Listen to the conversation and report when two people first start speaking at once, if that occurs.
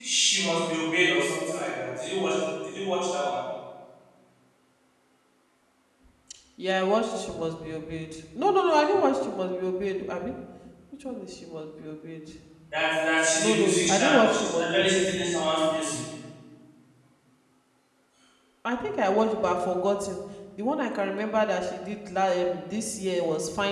13.4 s

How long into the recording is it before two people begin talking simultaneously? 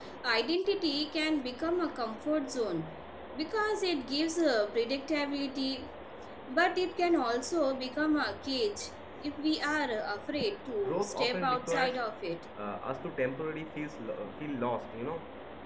10.8 s

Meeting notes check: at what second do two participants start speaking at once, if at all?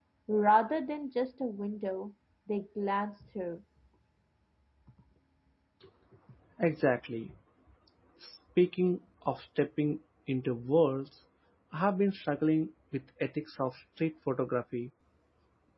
none

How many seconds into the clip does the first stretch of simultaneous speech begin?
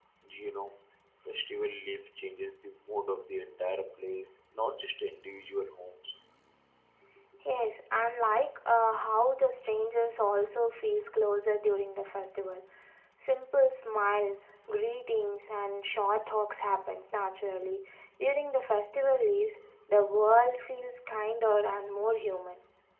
none

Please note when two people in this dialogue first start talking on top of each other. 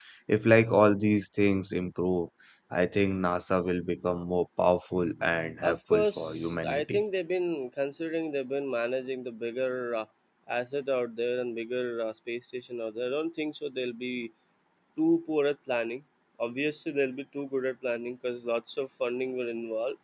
5.6 s

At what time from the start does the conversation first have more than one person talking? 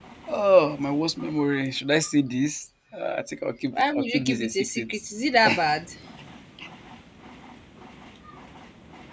3.7 s

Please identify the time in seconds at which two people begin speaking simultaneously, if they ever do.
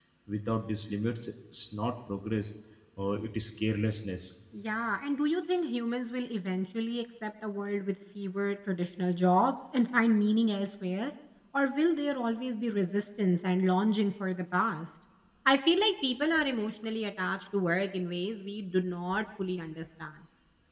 none

